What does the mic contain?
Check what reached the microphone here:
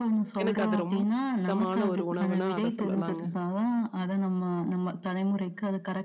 both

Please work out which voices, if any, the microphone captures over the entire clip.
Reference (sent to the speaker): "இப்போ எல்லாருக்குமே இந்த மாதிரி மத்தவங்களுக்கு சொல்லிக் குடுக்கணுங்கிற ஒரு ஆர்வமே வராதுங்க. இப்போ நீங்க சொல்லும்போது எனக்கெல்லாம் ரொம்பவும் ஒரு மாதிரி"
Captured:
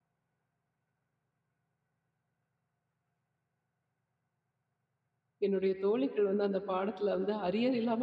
user only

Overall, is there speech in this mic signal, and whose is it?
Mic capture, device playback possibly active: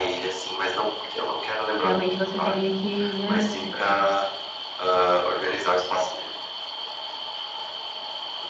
both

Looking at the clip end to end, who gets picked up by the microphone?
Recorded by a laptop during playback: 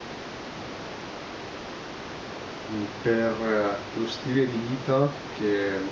user only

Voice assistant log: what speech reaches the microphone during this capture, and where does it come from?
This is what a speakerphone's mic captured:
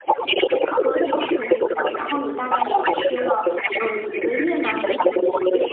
both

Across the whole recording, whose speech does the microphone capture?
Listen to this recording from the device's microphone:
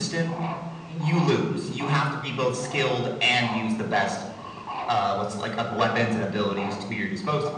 echo only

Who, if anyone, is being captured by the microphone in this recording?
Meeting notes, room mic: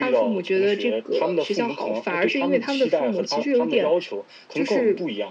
echo only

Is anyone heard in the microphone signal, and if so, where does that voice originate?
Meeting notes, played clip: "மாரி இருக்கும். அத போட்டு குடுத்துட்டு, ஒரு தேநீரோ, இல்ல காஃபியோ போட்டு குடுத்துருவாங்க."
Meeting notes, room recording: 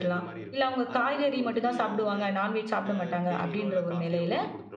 both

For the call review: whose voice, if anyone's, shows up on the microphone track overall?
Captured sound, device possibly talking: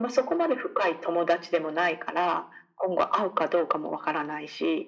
echo only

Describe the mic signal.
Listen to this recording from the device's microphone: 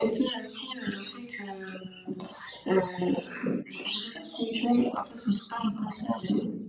echo only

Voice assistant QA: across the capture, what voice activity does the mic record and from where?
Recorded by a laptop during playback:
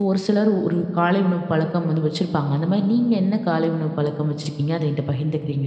user only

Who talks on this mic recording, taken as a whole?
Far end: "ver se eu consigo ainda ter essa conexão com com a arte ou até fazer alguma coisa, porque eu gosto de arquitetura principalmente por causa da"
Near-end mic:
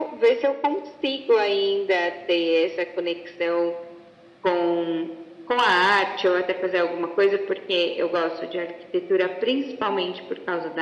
echo only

